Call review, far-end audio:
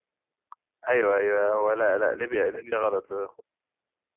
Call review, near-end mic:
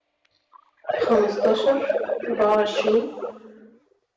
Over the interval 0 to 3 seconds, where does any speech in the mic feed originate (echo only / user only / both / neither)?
both